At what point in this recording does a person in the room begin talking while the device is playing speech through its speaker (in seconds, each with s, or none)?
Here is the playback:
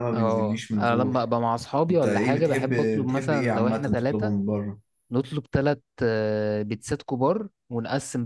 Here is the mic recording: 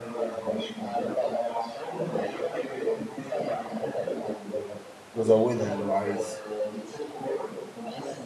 5.1 s